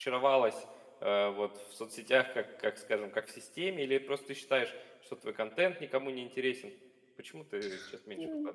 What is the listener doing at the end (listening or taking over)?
taking over